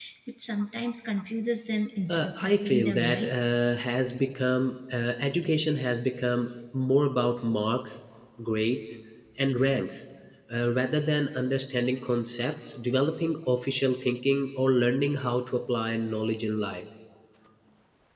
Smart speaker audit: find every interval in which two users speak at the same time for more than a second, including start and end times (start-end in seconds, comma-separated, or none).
2.1-3.3